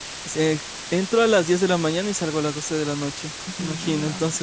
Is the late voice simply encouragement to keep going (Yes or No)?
Yes